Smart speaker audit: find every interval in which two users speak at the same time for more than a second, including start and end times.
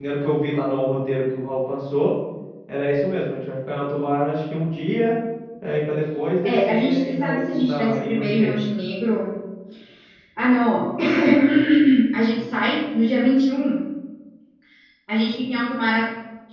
6.5-8.5

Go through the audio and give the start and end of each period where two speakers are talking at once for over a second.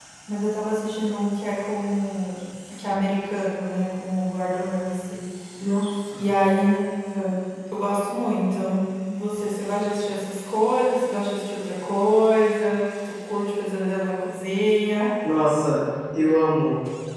none

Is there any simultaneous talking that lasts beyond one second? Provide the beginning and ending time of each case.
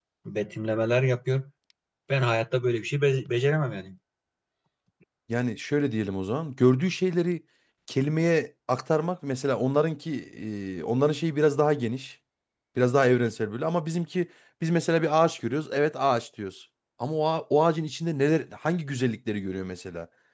none

